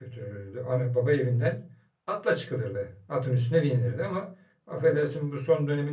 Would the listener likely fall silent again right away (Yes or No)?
Yes